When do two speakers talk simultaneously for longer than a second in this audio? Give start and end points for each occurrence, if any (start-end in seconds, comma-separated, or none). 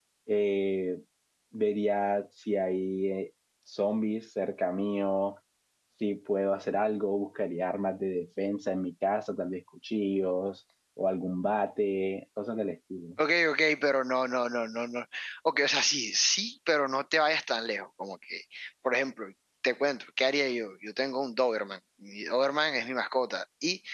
none